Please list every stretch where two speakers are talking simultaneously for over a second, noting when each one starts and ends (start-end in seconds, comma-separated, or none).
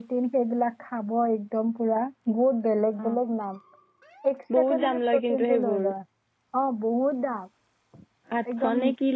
4.6-5.8